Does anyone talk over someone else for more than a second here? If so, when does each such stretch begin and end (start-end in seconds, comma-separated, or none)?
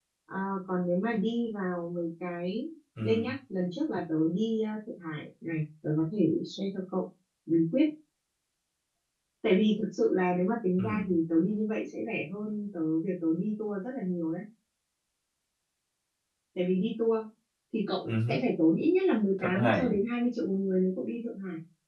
none